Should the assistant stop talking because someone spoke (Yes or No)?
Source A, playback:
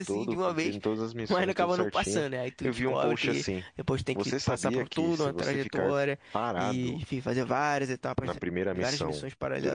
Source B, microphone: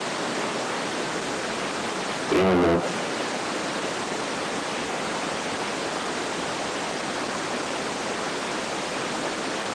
Yes